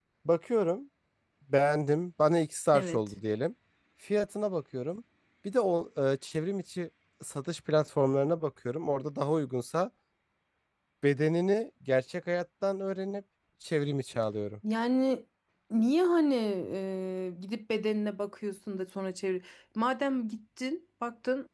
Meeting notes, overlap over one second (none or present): none